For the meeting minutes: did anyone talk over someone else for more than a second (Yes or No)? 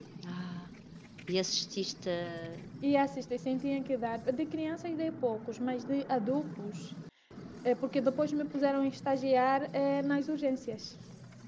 No